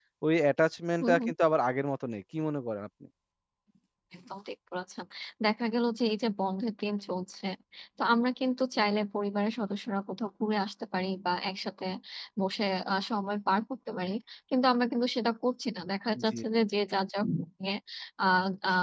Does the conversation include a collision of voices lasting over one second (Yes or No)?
No